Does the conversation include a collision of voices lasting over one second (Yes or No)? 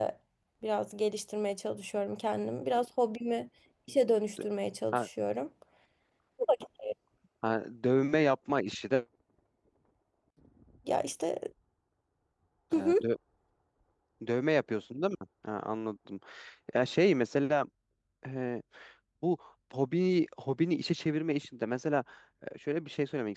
No